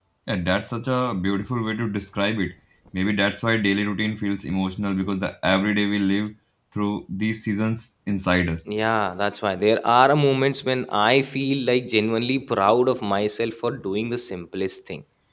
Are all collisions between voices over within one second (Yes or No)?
Yes